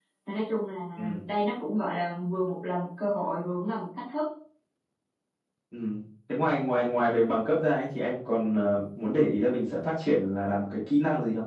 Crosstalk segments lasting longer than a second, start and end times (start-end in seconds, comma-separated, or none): none